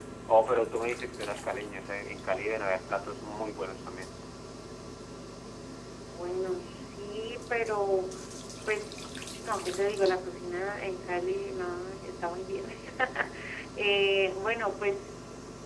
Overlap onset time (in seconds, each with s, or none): none